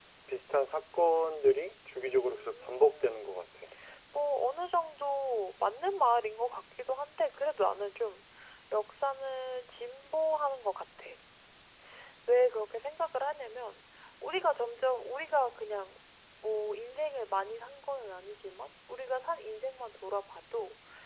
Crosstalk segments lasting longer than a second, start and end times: 2.0-3.5

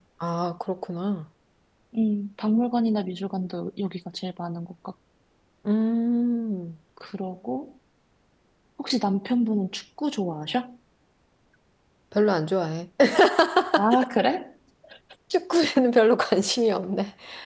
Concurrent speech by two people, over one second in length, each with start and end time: none

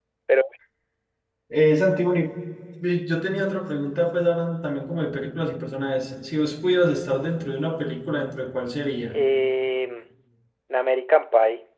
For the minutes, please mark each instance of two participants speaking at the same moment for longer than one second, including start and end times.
none

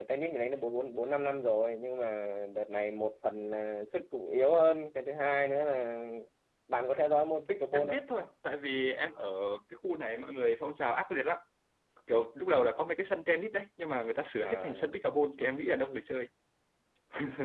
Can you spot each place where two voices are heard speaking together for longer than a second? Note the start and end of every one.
none

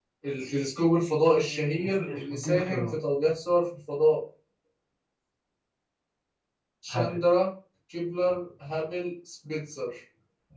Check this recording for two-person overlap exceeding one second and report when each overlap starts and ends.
1.4-3.0

